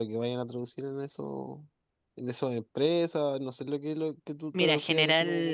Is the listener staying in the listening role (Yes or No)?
No